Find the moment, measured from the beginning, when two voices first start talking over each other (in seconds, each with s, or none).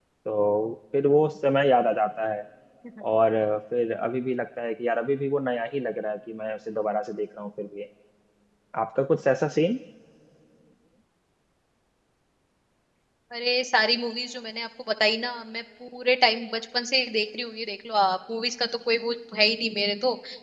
none